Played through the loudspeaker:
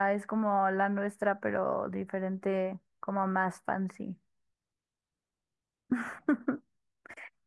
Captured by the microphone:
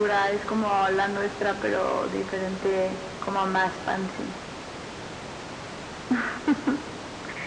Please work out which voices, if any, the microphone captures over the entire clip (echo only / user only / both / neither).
echo only